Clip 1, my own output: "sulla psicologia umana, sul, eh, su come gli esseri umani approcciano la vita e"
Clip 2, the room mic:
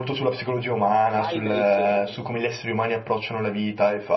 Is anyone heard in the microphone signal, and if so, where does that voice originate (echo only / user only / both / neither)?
both